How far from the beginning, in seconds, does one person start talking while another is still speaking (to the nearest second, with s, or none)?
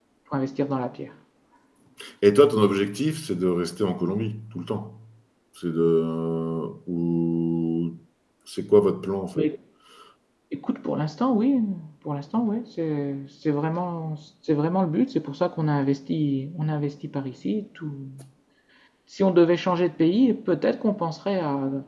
none